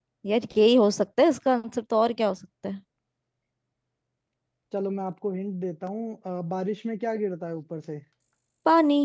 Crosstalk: none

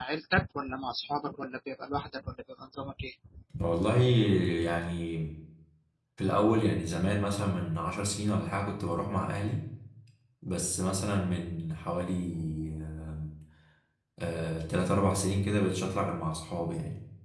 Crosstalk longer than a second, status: none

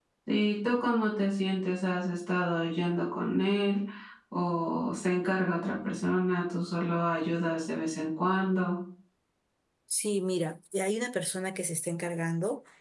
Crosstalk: none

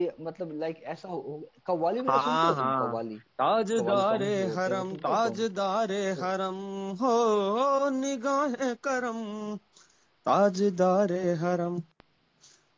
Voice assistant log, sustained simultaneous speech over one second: present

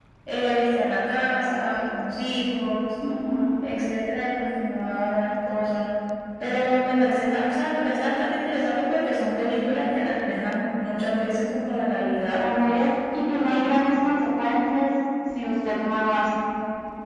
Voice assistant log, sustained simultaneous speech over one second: none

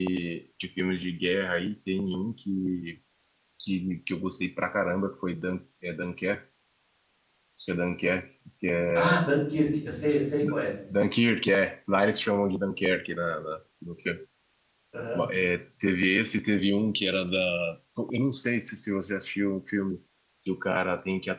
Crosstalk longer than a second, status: none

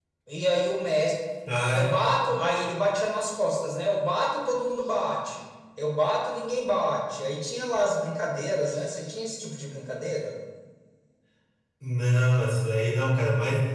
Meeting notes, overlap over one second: none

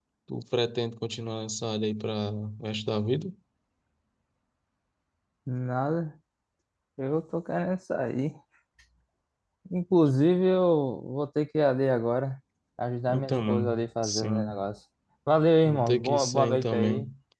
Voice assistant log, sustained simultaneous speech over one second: present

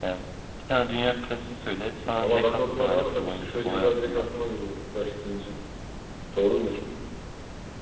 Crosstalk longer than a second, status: present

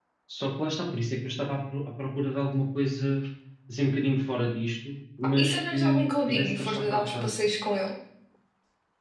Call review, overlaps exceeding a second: present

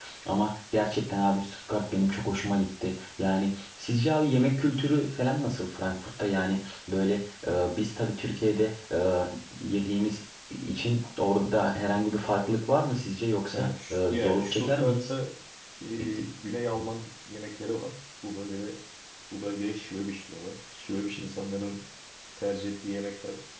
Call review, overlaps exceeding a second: present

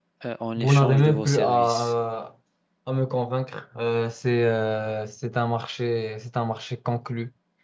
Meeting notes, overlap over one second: present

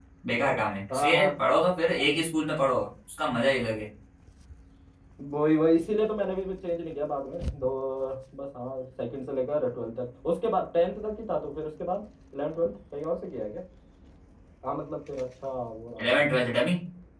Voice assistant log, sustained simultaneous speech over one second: none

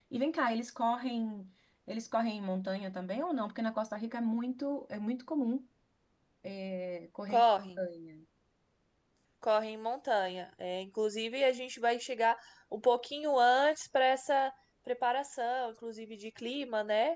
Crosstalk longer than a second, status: none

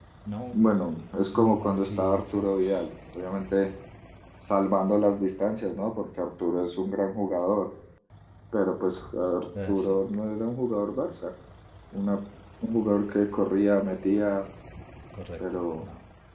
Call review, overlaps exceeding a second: present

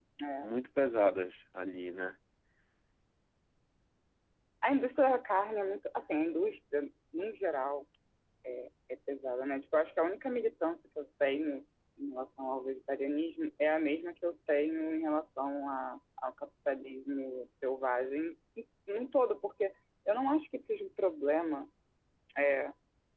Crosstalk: none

